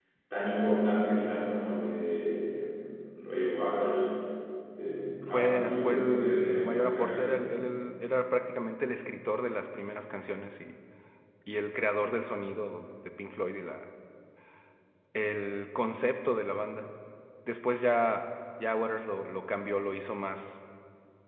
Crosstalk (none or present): present